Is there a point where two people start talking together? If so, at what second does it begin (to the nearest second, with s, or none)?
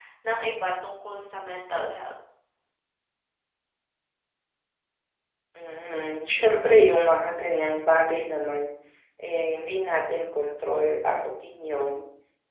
none